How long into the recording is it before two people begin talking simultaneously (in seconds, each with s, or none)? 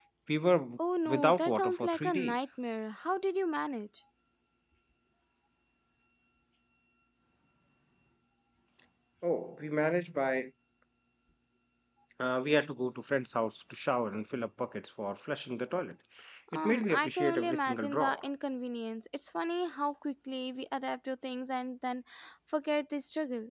1.1 s